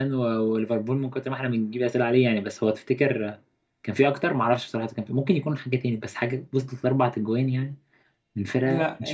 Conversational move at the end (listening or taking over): taking over